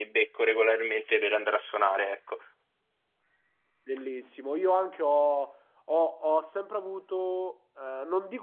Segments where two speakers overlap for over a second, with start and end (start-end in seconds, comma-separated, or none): none